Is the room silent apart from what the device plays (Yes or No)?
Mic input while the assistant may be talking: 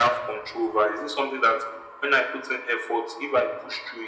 Yes